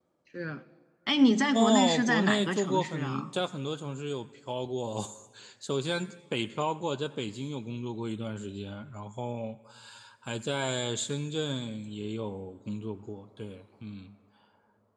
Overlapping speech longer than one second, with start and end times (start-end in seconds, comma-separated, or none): 1.5-3.2